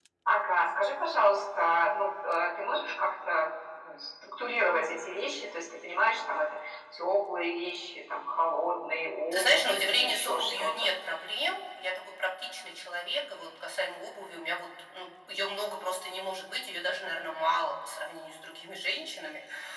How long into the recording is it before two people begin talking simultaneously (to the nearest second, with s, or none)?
9 s